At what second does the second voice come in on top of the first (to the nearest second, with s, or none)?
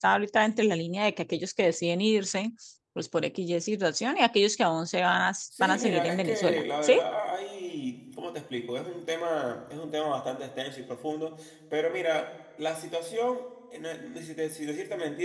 6 s